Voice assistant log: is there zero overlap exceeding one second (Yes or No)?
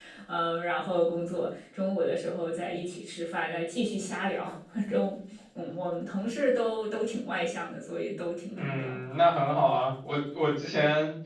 Yes